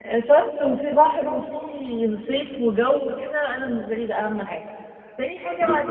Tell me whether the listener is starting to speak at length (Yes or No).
Yes